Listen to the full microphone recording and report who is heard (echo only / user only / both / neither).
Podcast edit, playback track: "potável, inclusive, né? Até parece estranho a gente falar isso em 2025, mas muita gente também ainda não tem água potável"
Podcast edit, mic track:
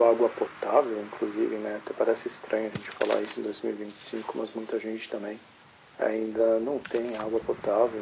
echo only